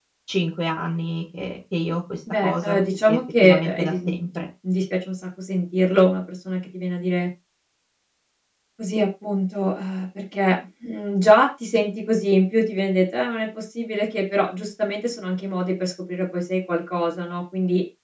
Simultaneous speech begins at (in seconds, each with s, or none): 2.3 s